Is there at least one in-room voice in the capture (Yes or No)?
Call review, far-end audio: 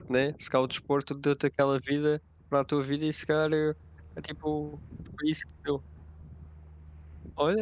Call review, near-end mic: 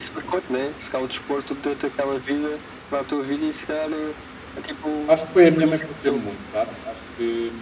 Yes